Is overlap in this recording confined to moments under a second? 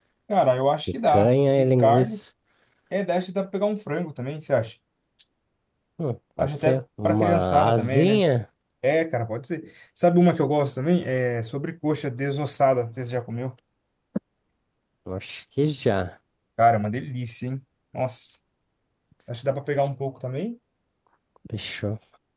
No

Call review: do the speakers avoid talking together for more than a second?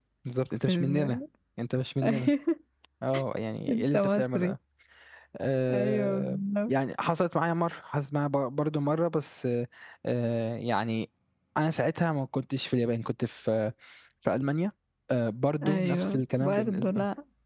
No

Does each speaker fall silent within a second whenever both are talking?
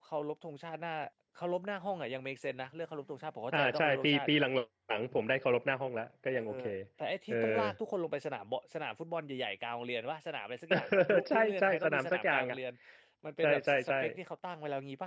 No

